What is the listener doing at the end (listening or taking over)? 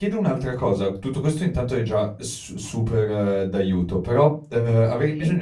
listening